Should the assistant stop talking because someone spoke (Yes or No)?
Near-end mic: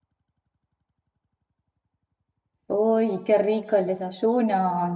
Yes